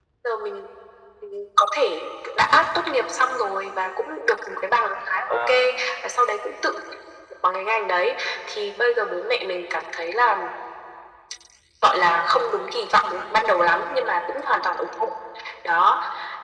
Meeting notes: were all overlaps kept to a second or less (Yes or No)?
Yes